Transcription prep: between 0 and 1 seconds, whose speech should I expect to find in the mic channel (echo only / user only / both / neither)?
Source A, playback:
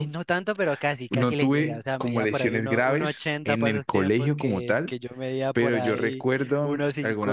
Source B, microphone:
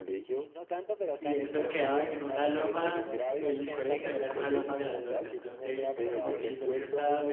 echo only